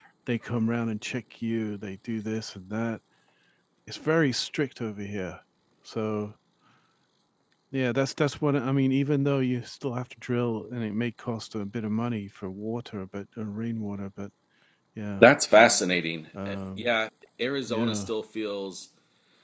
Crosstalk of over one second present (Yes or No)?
No